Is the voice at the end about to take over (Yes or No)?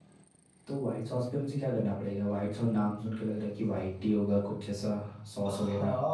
Yes